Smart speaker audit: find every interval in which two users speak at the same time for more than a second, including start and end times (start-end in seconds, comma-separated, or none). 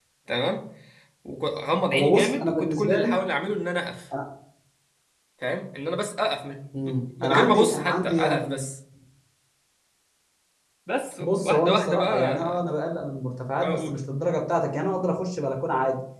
1.9-3.1, 7.2-8.6, 11.2-12.6